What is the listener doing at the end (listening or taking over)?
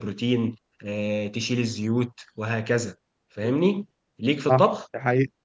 taking over